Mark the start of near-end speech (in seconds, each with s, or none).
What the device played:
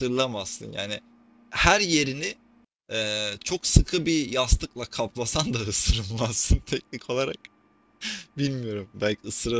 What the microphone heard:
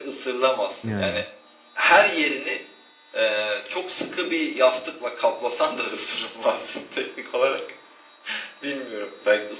0.8 s